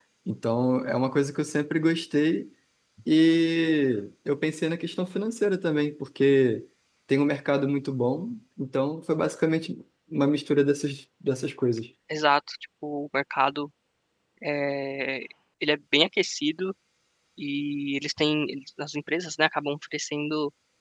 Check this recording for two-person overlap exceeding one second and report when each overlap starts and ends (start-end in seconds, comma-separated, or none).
none